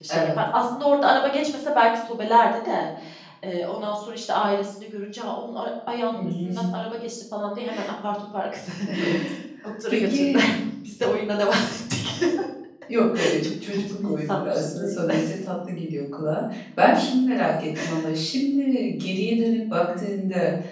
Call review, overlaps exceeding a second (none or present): present